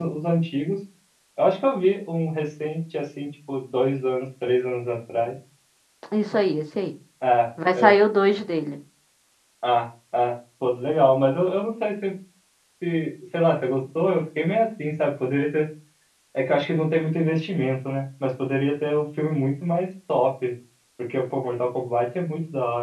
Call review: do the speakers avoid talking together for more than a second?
Yes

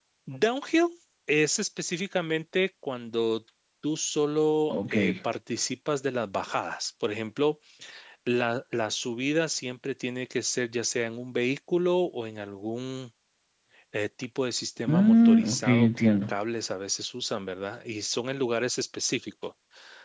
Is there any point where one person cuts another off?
Yes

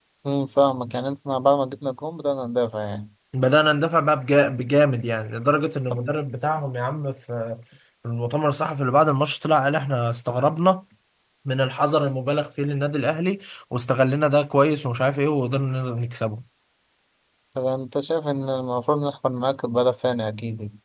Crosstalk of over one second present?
No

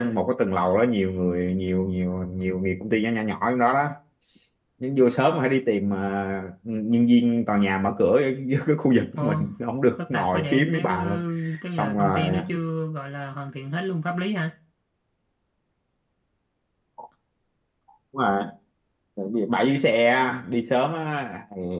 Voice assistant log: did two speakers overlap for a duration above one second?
Yes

